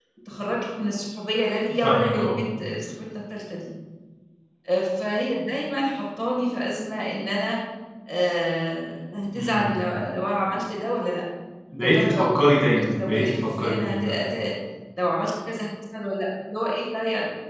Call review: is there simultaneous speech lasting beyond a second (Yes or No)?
Yes